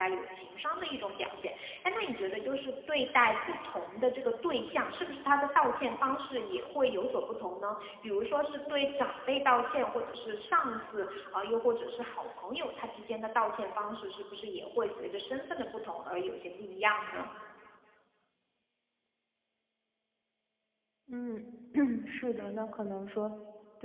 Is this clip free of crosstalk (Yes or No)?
Yes